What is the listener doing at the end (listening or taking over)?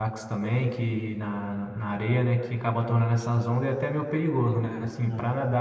listening